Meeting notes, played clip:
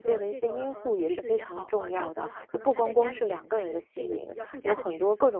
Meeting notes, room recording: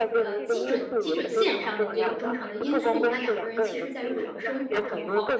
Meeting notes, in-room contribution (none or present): present